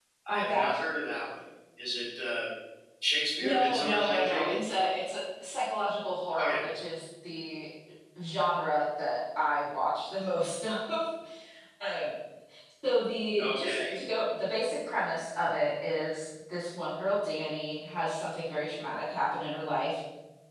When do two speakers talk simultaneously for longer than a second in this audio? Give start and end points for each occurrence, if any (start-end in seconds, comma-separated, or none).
3.4-4.6